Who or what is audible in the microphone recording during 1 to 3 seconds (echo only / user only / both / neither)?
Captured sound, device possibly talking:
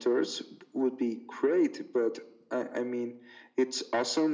echo only